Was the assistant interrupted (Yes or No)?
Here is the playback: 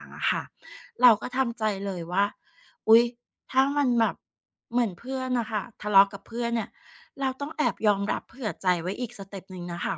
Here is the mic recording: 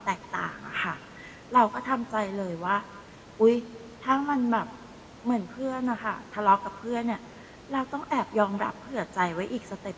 No